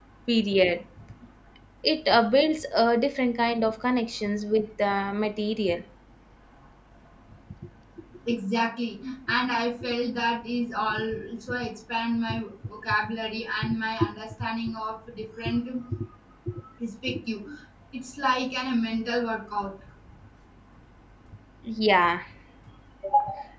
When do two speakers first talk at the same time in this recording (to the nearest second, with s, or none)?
none